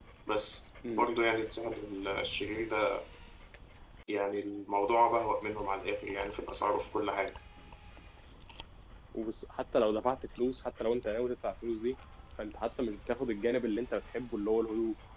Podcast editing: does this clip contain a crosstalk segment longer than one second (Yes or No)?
No